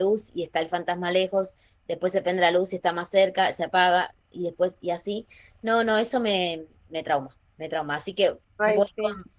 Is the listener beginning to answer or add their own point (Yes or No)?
No